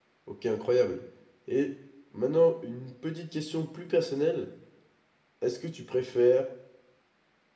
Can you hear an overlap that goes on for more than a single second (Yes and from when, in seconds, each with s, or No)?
No